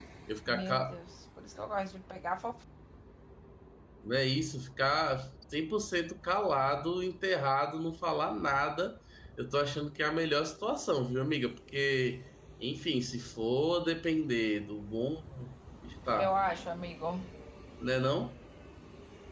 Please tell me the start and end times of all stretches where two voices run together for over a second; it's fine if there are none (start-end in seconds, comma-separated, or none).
none